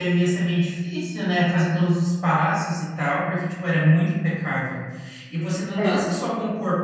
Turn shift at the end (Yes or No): No